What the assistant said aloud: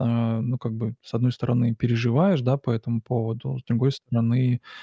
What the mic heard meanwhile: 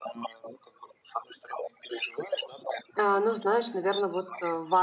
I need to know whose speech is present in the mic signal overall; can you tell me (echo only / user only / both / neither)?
both